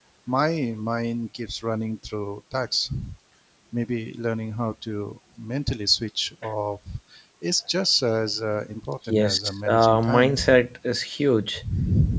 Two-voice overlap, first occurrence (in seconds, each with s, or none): 9.1 s